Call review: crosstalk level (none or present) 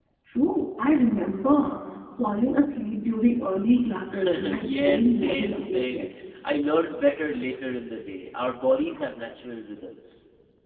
present